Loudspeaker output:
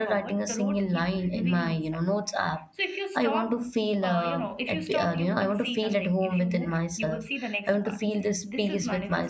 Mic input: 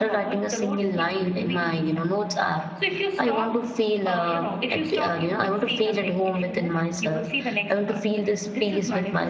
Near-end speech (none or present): none